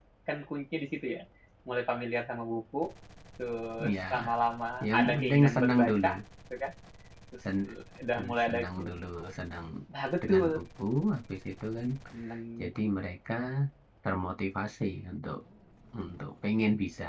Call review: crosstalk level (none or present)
present